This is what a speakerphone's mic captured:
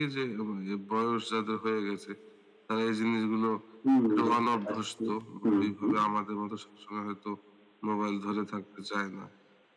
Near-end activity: present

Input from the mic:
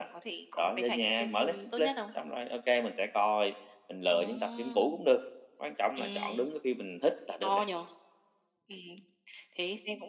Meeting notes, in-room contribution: present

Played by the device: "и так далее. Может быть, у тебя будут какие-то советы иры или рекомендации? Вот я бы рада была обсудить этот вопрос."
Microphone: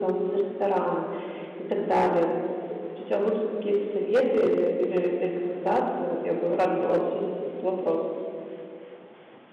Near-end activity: none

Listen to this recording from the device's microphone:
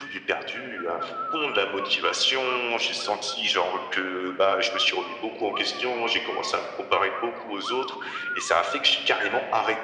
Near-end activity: none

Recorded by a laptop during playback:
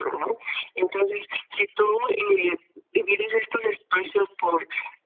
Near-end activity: none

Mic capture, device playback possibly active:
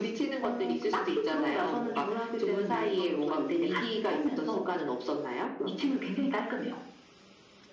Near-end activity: none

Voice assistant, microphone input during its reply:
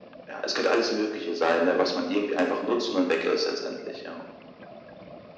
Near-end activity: none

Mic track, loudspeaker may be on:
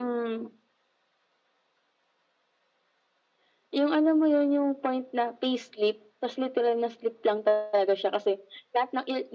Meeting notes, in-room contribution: none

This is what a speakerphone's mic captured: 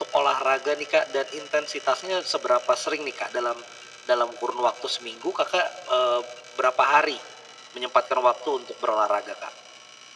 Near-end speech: none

